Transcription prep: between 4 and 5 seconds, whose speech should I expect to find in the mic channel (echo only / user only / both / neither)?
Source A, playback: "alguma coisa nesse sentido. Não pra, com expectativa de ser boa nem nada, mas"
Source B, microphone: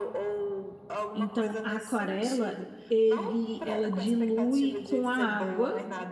both